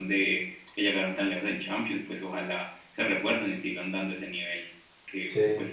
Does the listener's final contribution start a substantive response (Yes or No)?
No